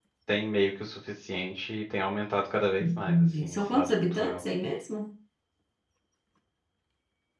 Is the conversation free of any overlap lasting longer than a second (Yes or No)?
No